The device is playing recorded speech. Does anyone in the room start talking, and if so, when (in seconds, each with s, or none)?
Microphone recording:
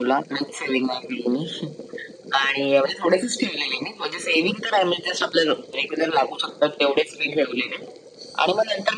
none